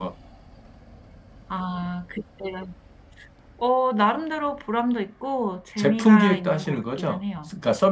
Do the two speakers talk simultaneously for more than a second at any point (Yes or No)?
Yes